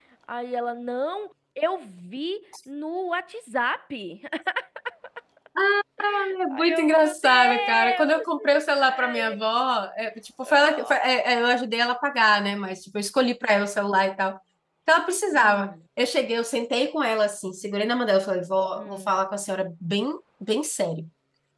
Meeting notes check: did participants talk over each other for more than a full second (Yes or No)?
Yes